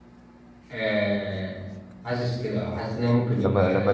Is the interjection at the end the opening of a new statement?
Yes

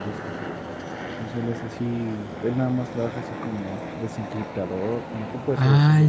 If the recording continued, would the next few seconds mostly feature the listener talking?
Yes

